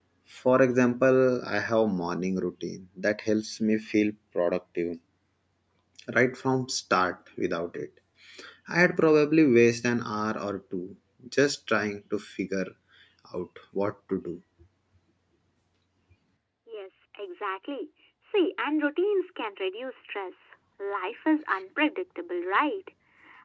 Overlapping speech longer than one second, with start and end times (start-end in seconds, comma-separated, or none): none